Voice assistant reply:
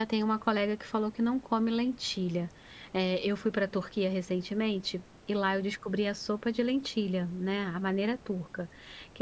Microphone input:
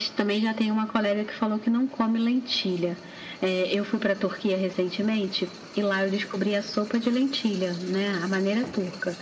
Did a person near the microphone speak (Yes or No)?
No